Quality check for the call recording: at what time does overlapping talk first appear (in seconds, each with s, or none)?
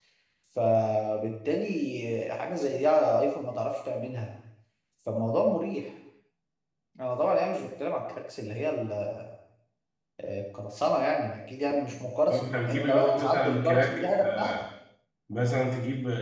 12.3 s